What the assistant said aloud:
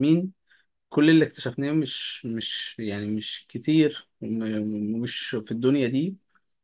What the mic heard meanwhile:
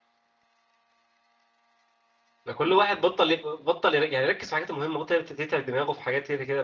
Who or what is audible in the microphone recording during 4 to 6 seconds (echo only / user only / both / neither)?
user only